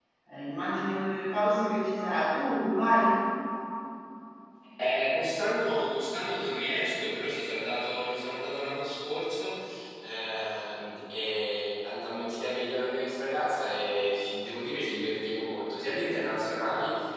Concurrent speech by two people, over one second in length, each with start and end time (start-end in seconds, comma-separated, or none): none